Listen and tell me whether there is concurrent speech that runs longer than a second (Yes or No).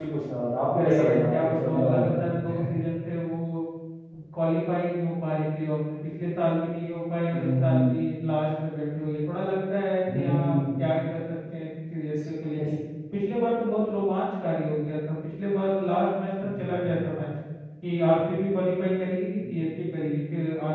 Yes